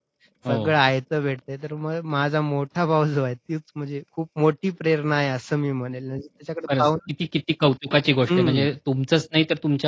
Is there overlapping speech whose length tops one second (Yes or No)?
No